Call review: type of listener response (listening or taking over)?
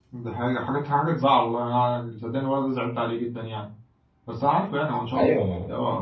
listening